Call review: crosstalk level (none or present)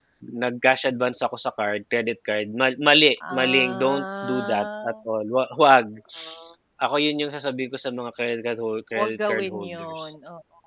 present